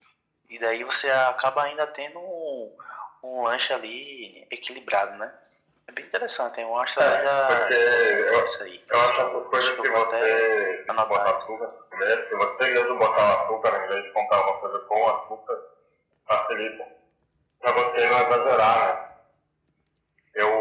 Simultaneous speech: Yes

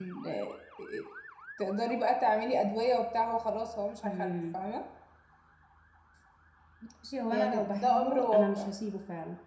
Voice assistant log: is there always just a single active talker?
No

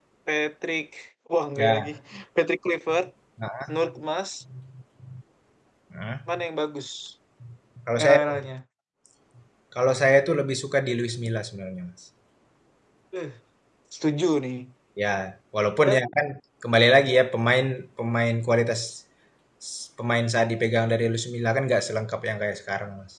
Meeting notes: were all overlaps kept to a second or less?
Yes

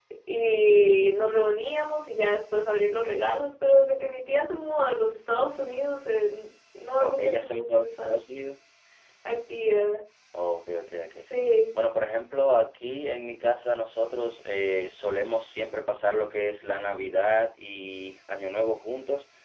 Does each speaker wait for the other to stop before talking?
No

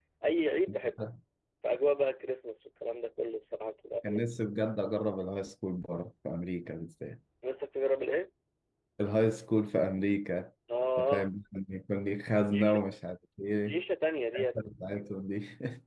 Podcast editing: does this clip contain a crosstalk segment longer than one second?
No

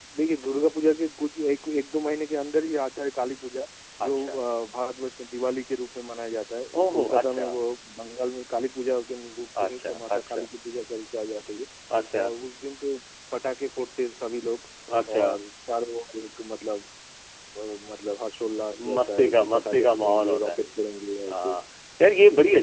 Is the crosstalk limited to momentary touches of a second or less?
No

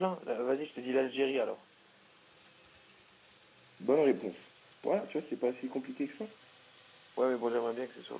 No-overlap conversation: Yes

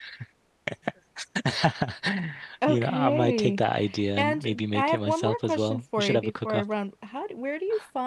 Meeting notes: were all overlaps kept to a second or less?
No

